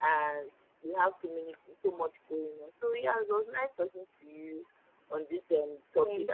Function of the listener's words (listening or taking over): listening